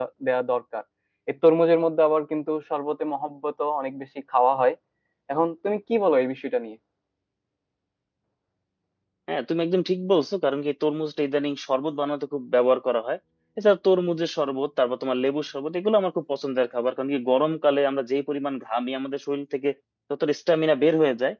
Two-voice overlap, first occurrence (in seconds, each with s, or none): none